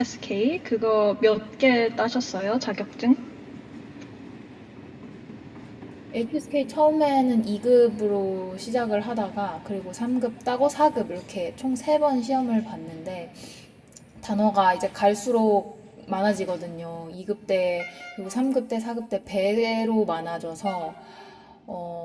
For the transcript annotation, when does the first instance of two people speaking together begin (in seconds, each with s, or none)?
none